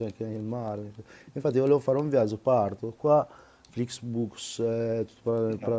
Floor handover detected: No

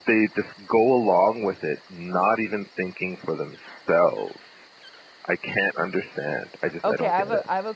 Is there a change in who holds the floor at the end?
Yes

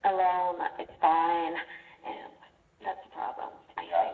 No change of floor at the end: No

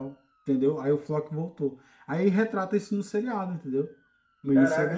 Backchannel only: No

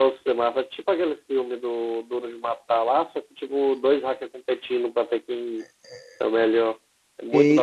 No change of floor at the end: No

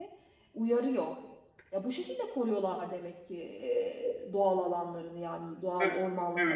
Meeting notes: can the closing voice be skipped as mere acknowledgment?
No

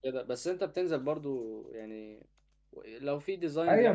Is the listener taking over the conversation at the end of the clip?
Yes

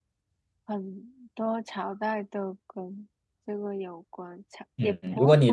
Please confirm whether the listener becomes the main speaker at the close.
Yes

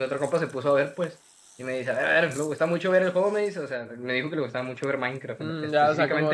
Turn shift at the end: Yes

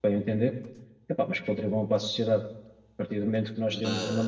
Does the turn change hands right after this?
No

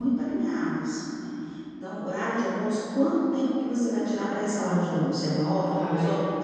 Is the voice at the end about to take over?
Yes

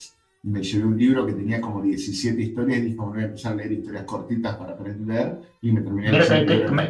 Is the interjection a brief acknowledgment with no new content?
No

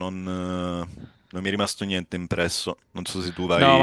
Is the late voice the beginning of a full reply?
Yes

